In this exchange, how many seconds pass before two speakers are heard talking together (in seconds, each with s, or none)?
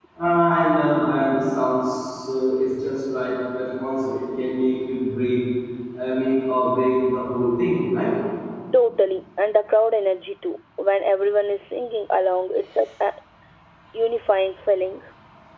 none